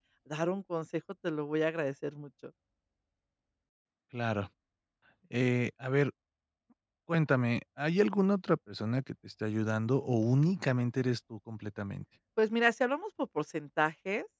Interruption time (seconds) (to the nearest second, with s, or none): none